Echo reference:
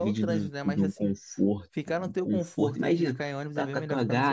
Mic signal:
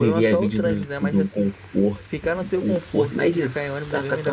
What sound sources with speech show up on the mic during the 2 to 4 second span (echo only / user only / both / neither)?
echo only